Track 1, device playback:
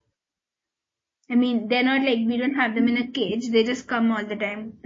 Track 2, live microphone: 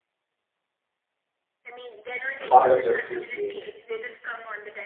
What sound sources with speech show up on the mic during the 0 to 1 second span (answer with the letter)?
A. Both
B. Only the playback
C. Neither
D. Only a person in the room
C